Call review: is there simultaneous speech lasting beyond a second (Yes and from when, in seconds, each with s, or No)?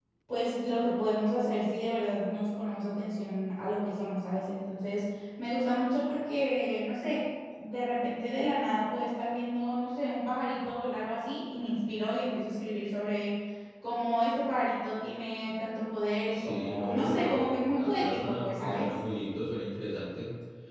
Yes, from 16.3 s